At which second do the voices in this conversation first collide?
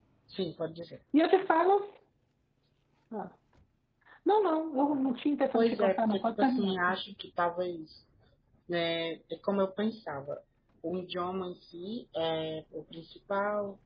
5.5 s

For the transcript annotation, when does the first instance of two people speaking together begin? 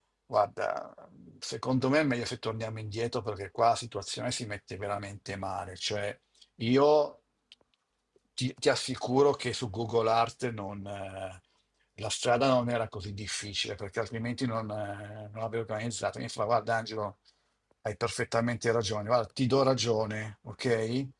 none

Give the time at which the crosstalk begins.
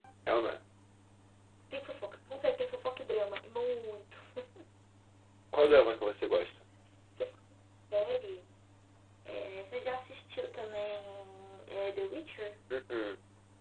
none

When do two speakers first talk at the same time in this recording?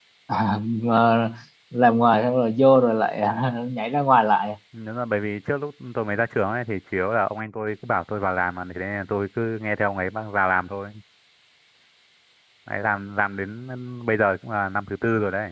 none

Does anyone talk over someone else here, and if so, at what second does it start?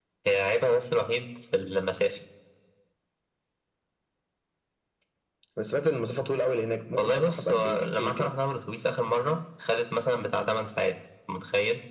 7.0 s

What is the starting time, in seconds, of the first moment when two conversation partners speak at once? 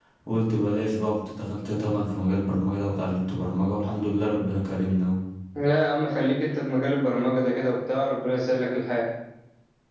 none

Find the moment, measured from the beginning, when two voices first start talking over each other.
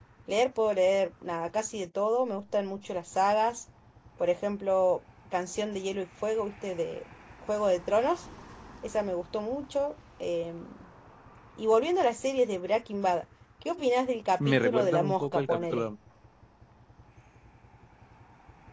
14.4 s

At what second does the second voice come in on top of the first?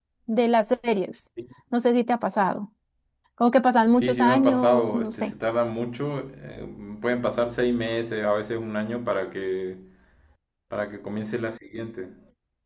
3.9 s

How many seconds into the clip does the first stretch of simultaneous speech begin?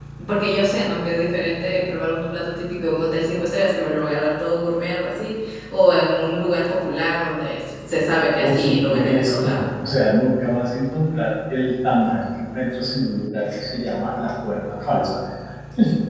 8.4 s

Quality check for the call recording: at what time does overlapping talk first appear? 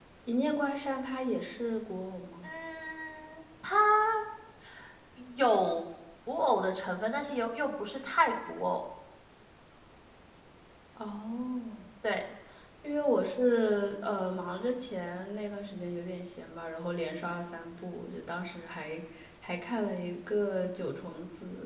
none

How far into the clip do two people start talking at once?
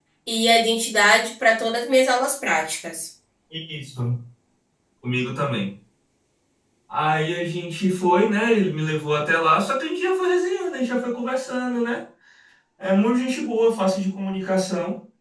none

